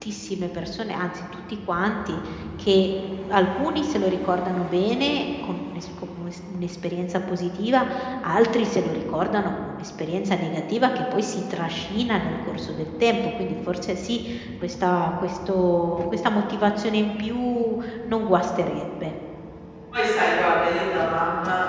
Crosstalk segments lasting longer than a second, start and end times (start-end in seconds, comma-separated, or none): none